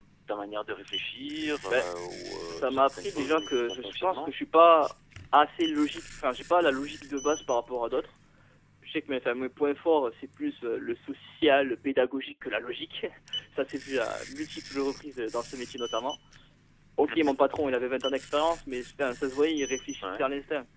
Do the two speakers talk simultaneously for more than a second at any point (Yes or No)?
Yes